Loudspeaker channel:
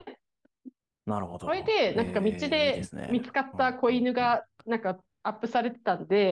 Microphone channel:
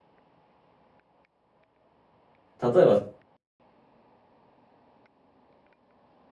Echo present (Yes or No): No